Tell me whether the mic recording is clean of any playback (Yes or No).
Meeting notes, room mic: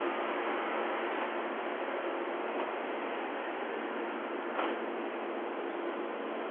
Yes